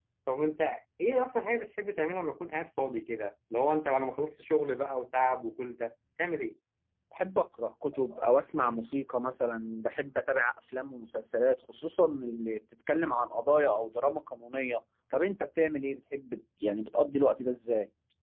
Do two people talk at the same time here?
No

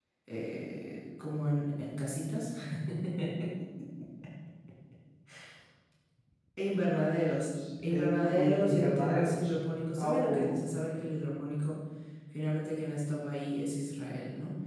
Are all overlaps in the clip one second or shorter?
No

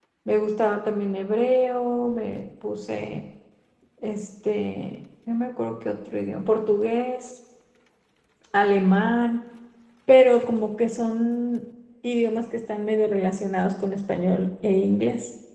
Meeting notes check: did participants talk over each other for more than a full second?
No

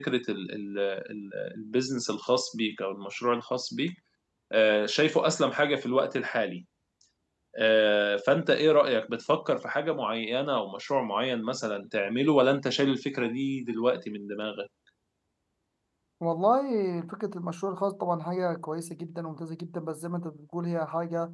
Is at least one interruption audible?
No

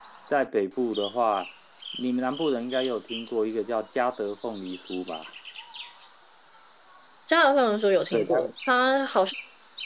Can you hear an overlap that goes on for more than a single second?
No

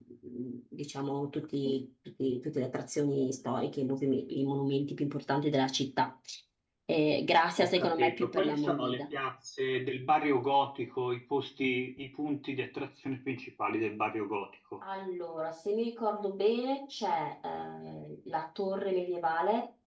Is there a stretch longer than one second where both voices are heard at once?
Yes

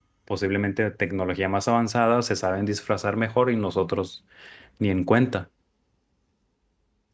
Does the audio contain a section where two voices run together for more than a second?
No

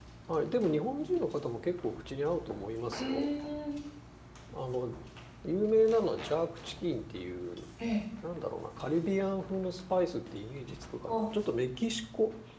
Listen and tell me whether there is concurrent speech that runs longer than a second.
No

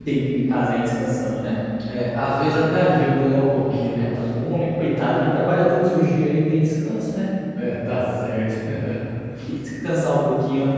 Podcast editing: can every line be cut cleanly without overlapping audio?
Yes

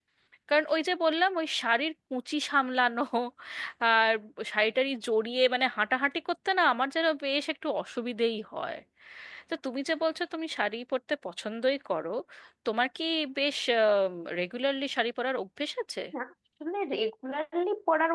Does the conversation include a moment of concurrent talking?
No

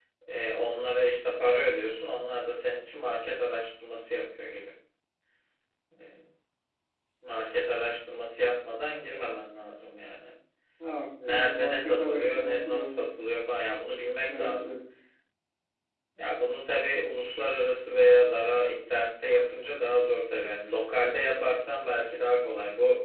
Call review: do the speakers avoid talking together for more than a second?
No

